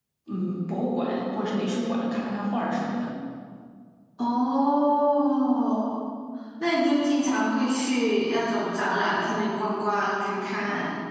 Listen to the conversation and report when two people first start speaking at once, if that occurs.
none

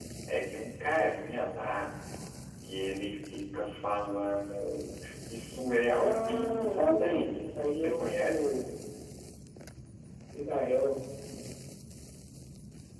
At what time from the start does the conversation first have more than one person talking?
6.0 s

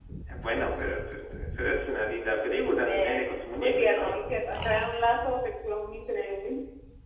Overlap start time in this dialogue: 2.8 s

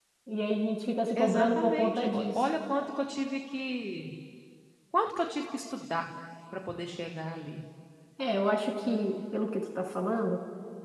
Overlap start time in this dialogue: 1.2 s

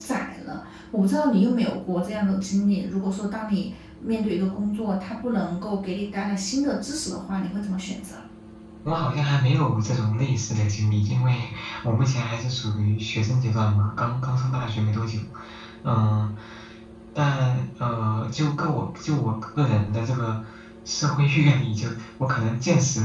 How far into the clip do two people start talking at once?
none

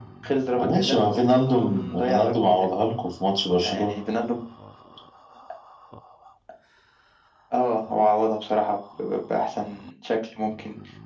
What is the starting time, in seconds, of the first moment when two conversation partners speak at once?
0.6 s

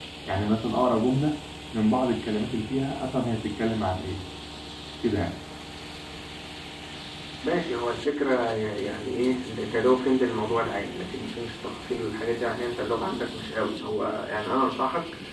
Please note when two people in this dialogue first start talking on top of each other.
none

